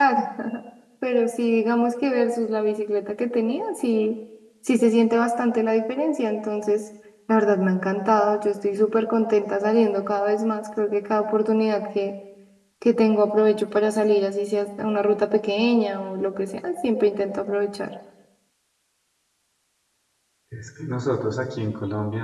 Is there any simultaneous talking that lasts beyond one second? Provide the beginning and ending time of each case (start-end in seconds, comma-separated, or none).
none